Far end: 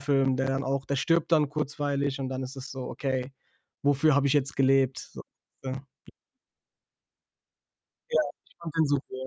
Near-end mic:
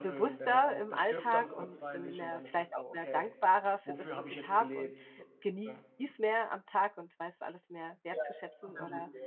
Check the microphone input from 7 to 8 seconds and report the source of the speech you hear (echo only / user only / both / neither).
user only